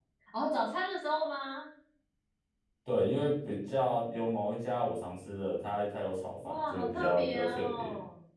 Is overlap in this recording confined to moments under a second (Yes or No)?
No